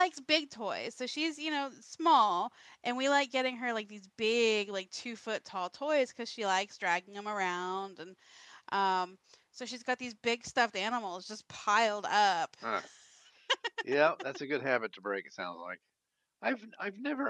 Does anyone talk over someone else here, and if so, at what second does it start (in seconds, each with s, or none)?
none